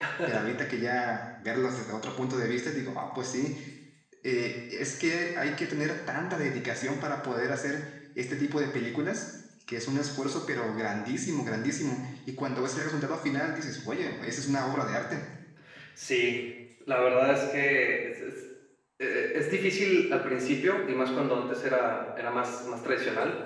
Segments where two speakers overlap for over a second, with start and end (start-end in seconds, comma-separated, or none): none